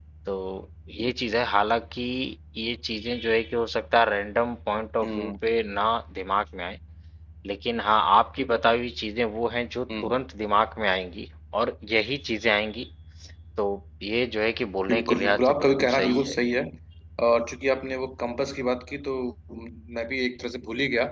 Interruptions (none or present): present